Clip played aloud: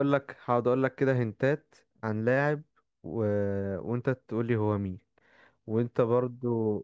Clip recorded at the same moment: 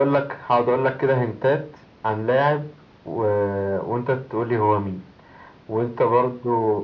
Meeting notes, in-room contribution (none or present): none